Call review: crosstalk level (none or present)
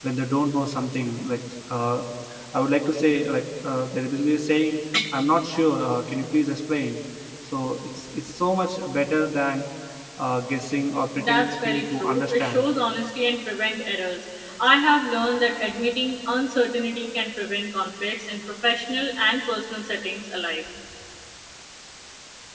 present